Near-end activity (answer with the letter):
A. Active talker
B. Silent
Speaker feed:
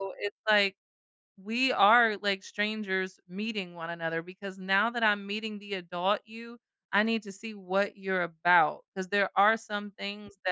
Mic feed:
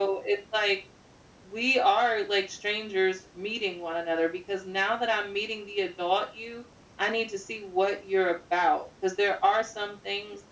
B